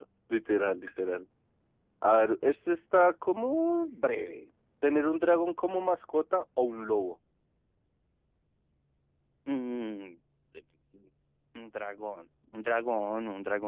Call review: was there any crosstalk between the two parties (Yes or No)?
No